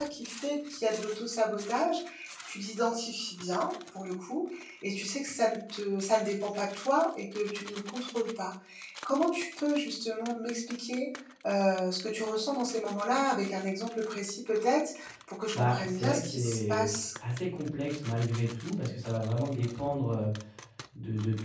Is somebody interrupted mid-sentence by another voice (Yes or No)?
Yes